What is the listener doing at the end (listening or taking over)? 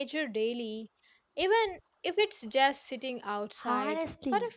taking over